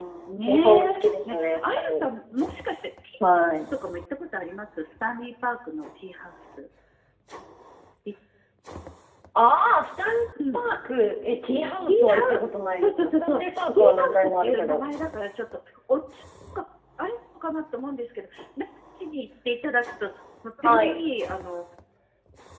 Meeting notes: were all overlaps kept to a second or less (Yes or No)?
No